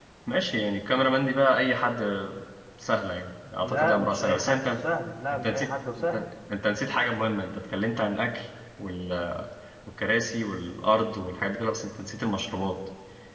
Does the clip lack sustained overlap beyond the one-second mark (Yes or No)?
No